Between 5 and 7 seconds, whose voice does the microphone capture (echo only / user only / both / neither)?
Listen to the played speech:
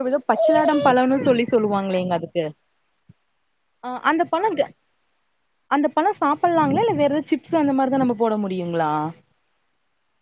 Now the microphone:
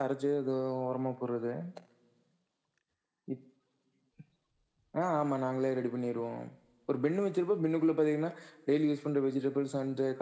user only